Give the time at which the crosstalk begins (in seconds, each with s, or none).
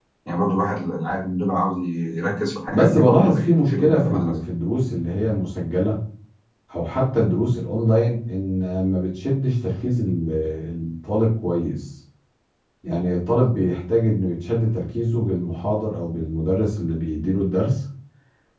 2.7 s